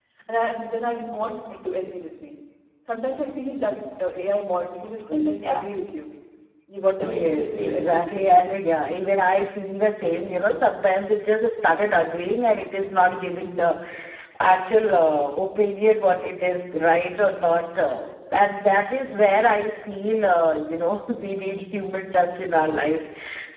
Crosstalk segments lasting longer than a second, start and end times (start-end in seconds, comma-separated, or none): 7.0-8.4